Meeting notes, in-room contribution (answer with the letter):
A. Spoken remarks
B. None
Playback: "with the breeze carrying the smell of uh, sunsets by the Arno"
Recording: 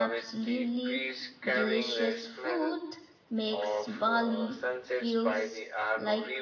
A